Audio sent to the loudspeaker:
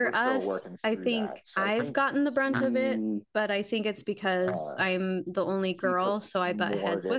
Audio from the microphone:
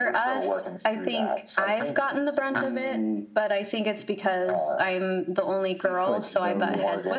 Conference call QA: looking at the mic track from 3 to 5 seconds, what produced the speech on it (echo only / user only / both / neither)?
echo only